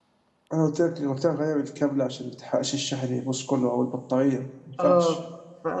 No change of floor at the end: No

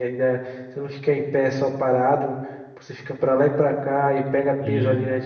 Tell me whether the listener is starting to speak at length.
No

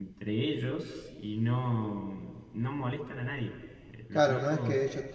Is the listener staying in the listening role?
No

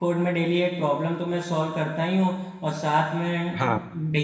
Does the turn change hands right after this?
No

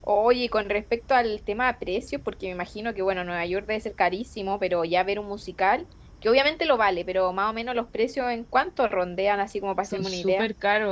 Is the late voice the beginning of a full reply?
Yes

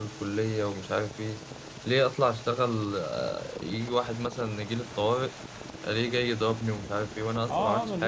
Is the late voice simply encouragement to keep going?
No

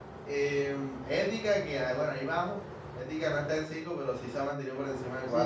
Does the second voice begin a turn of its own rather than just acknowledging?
Yes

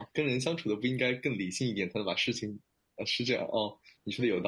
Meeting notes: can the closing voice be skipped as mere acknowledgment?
No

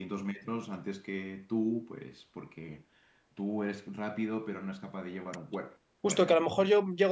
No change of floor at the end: No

